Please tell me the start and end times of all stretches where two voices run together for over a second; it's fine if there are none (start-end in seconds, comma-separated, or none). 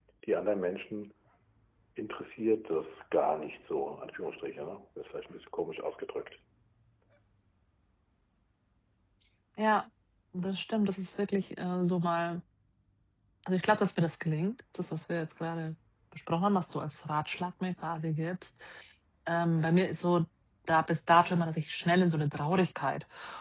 none